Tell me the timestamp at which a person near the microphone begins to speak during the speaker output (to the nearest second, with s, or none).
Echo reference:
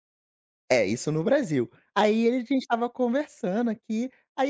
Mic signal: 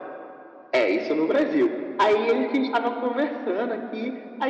none